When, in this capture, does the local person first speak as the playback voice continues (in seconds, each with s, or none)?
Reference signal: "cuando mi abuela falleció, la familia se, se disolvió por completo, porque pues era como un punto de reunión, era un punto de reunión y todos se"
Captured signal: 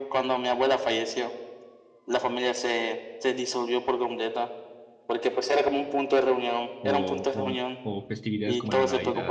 6.8 s